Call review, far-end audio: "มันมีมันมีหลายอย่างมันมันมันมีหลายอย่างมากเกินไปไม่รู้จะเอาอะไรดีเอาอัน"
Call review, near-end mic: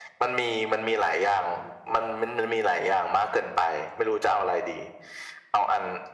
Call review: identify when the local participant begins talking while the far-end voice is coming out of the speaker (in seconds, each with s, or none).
none